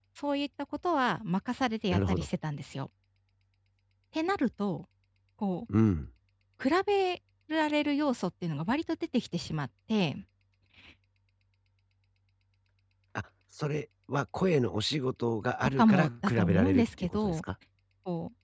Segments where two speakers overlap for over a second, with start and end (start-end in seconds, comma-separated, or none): 15.6-17.4